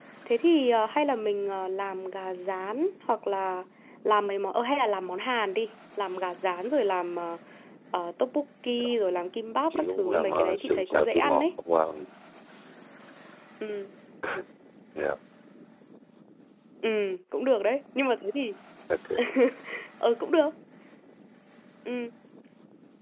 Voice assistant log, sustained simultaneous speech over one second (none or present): present